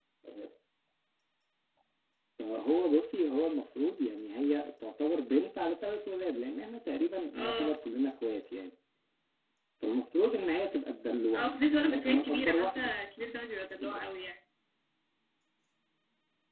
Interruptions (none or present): present